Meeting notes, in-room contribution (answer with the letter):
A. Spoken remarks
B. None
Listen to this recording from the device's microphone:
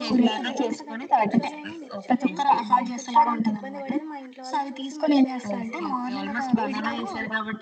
A